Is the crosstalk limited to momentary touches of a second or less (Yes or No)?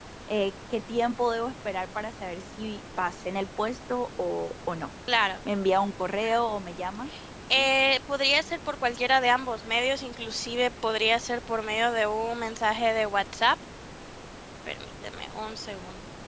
Yes